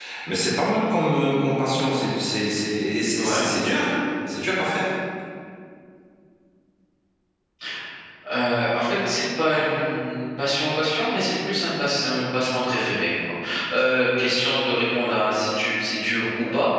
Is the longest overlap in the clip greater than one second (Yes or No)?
No